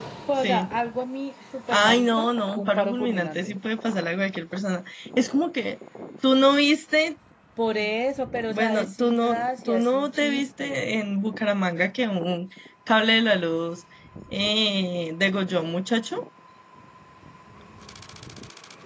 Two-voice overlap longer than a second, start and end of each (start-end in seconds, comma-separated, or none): 1.8-3.6, 8.4-10.9